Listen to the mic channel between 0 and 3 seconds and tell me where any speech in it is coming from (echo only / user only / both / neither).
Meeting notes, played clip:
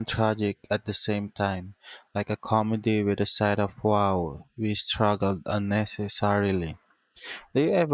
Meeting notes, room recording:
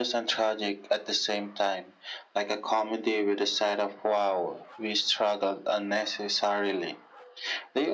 echo only